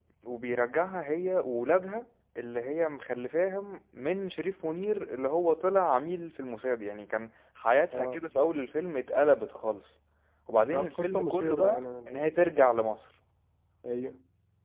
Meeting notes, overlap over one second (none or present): present